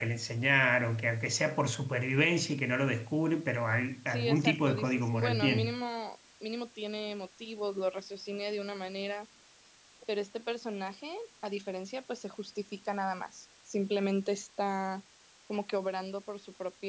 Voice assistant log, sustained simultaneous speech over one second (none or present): present